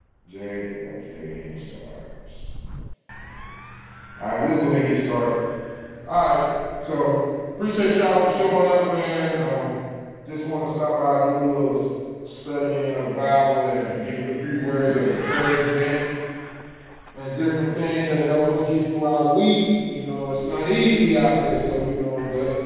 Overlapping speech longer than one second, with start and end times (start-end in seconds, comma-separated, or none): none